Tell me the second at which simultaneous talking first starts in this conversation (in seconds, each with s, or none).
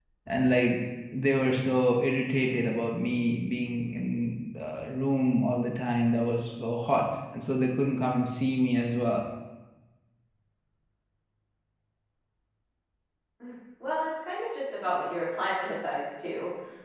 none